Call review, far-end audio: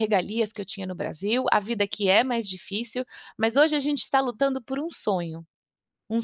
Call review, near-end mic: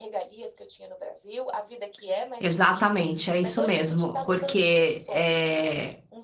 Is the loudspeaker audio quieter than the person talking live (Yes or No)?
Yes